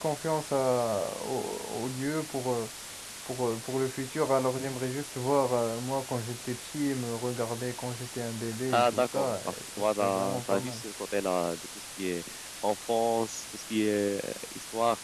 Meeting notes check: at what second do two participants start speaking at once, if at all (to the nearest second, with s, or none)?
8 s